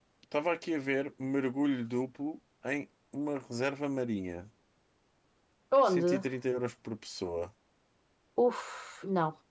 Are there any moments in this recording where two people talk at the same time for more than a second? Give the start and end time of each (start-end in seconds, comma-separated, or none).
none